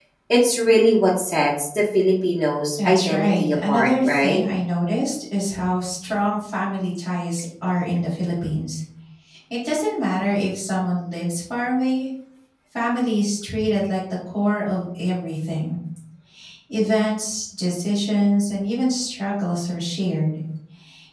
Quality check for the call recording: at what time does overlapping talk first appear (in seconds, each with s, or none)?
2.8 s